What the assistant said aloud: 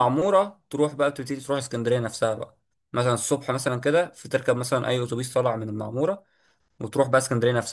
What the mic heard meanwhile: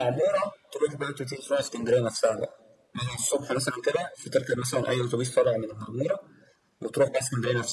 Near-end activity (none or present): none